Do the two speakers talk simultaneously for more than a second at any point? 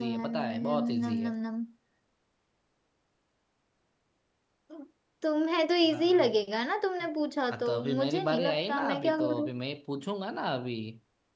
Yes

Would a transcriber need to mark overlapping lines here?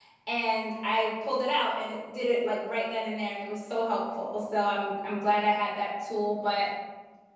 No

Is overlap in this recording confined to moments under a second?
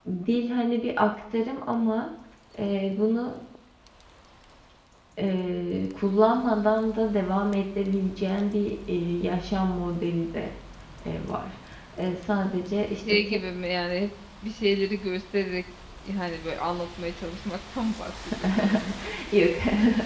Yes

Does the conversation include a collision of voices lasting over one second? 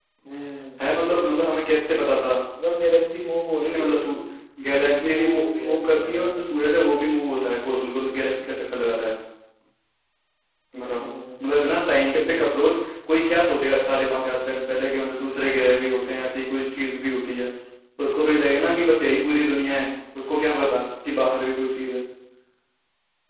Yes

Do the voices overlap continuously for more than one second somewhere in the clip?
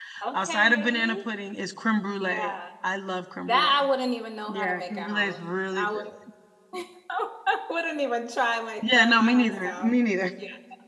Yes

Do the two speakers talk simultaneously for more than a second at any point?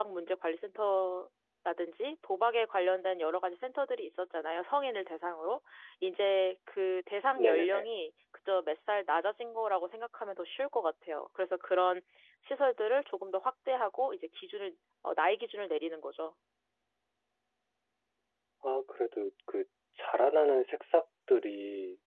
No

